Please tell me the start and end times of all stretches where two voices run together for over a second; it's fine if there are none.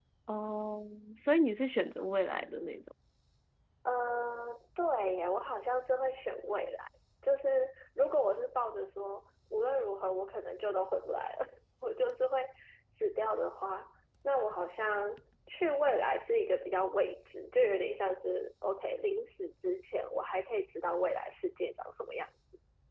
none

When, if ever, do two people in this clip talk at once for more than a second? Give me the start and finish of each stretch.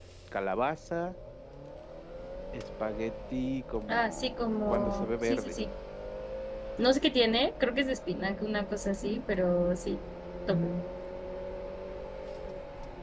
3.9-5.6

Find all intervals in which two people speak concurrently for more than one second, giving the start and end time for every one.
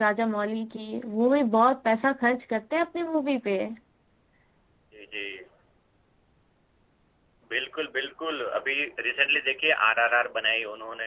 none

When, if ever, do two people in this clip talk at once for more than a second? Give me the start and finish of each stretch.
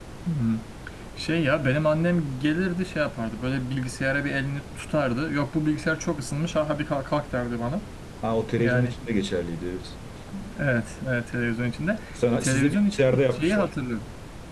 12.4-13.7

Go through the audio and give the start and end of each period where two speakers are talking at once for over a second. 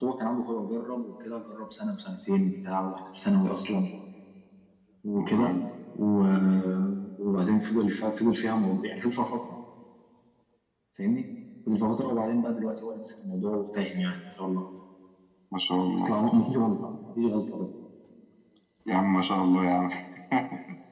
none

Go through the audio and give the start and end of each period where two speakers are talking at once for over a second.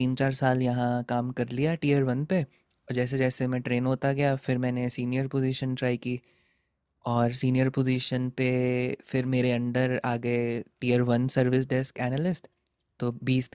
none

